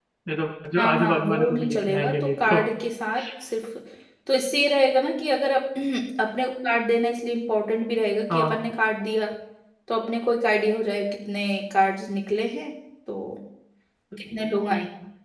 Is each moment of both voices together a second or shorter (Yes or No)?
No